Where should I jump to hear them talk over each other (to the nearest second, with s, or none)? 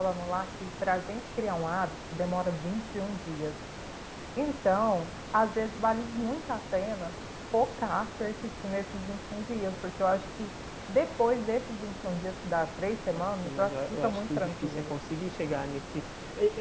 13 s